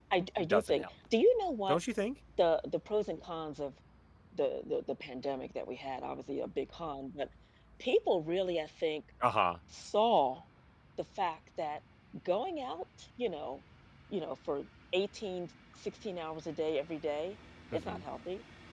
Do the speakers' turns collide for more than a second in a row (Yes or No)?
No